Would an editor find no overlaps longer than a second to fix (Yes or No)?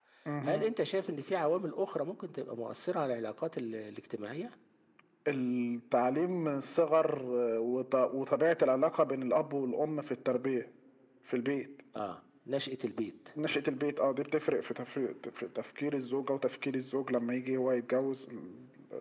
Yes